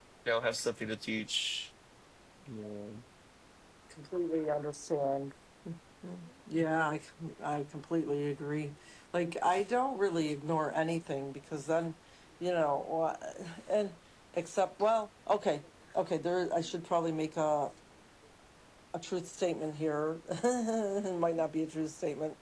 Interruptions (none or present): none